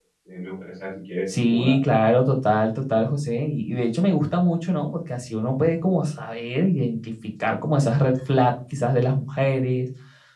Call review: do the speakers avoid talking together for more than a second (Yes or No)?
Yes